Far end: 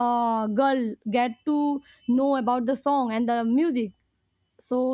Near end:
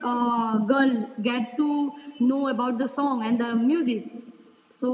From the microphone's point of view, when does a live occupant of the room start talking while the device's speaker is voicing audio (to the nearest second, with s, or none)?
none